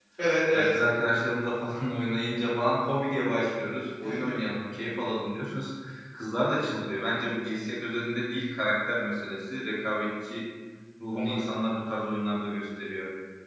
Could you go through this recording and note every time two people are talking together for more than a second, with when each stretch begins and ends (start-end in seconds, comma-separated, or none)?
none